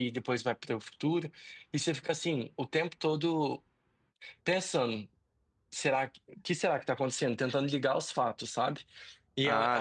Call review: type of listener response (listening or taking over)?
taking over